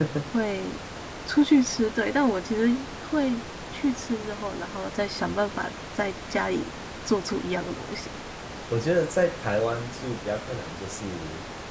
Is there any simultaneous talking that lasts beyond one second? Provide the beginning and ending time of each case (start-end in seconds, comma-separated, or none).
none